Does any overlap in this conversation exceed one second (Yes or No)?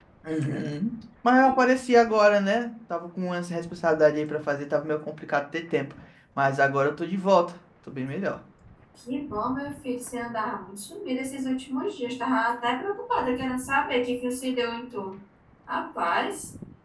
No